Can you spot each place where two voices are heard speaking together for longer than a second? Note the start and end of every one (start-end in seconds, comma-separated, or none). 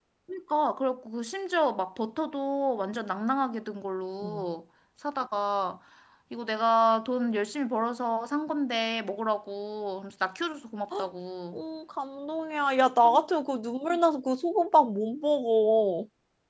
none